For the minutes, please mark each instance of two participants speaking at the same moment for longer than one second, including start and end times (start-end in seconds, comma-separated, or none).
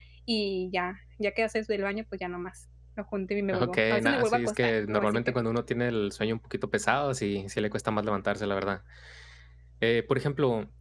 3.5-5.3